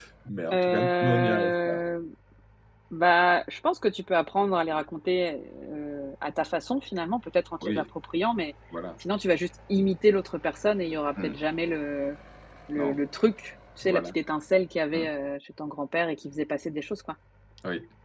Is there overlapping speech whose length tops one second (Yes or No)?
Yes